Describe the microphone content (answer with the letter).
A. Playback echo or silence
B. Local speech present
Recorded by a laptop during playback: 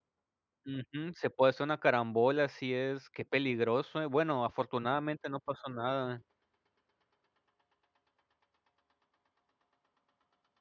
B